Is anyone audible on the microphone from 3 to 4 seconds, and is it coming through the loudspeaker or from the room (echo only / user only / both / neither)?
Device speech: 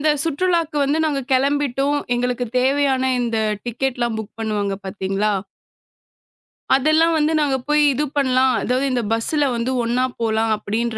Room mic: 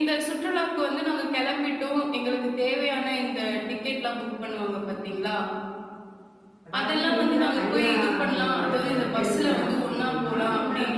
echo only